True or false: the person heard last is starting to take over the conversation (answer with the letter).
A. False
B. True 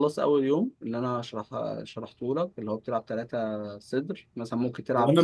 B